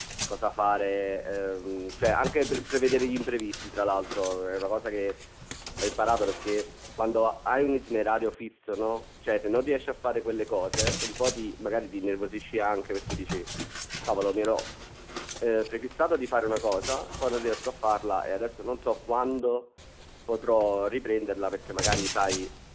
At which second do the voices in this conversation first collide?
none

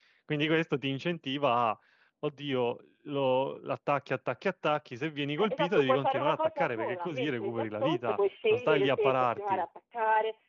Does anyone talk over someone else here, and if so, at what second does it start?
5.4 s

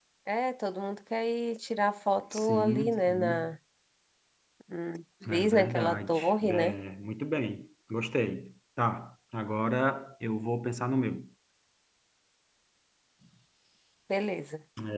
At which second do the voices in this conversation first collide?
2.3 s

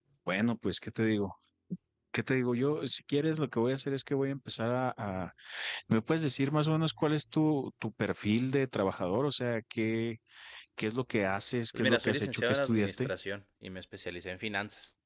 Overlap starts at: 11.7 s

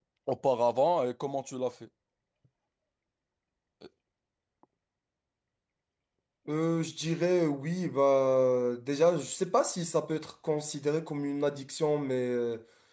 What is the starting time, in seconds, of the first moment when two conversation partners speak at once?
none

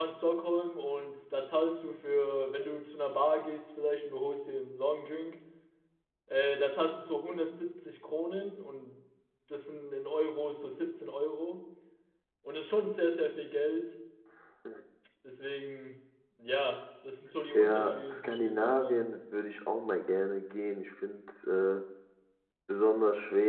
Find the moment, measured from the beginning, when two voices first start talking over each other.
17.5 s

